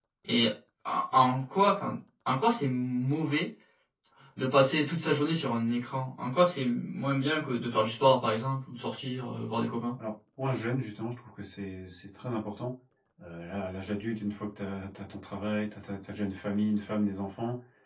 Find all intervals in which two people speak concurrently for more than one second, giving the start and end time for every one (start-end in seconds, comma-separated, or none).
none